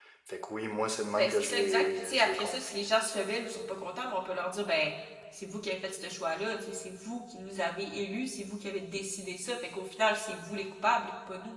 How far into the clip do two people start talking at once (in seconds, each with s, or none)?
1.2 s